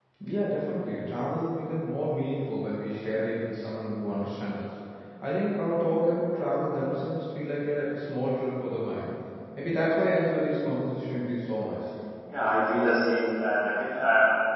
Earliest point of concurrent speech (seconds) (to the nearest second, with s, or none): none